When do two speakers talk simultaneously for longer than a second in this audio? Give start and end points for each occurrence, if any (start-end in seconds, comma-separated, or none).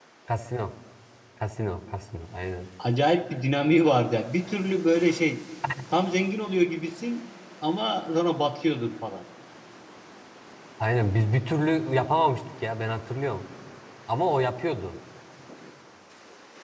none